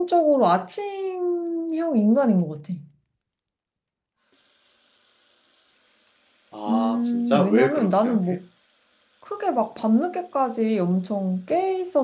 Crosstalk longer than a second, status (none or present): present